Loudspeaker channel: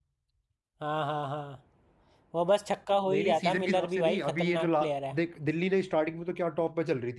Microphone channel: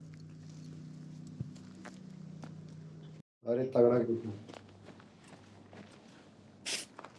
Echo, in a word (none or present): none